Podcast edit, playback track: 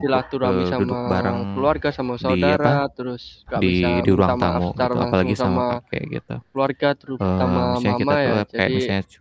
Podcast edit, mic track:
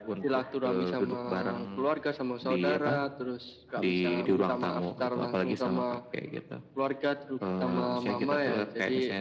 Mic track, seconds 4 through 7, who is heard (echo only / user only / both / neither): echo only